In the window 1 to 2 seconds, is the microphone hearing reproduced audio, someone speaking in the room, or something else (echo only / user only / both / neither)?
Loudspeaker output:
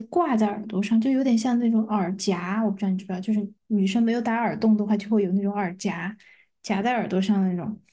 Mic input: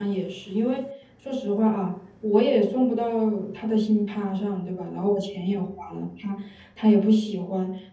user only